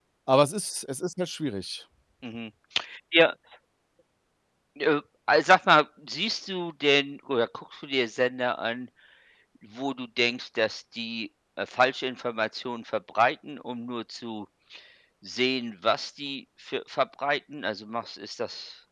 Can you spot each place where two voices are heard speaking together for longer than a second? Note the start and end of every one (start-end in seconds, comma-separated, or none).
none